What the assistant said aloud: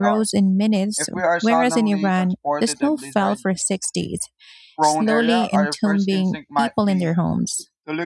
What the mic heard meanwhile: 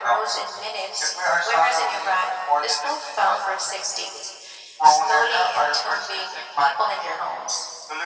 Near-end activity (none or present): none